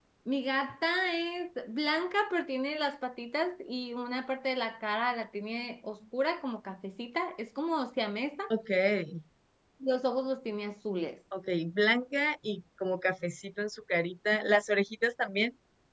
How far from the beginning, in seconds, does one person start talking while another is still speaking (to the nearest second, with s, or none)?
none